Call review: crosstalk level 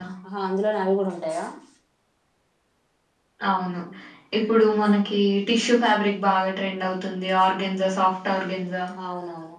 none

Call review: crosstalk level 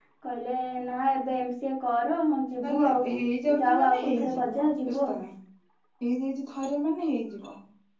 present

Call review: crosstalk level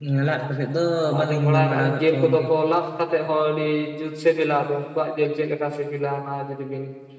present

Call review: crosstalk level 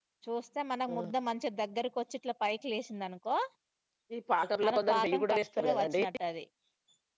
present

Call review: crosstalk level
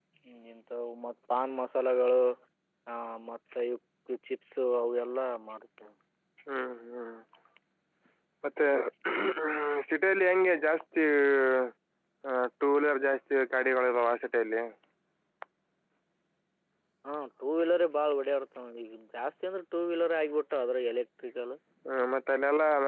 none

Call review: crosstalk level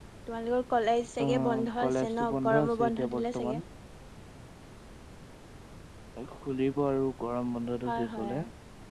present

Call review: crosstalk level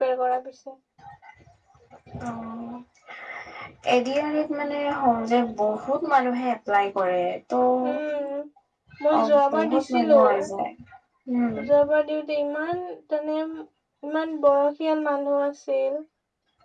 present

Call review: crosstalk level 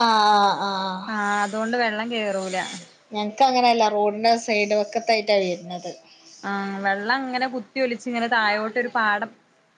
none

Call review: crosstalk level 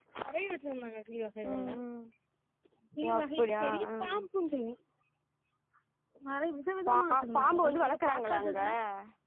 present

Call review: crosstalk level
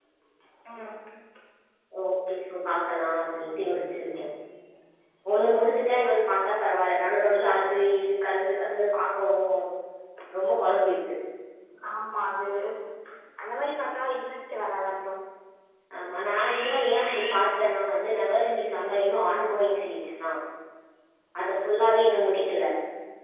none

